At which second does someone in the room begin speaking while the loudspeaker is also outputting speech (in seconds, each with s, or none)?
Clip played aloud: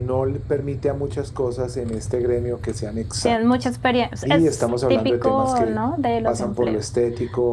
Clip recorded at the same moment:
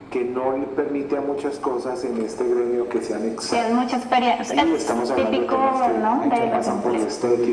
6.2 s